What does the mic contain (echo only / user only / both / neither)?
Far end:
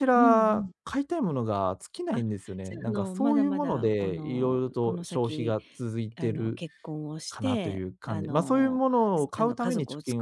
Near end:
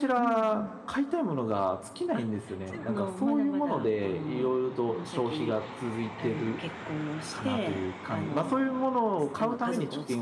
echo only